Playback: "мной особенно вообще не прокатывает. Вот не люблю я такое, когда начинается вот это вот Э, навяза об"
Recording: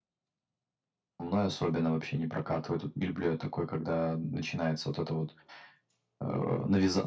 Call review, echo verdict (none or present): present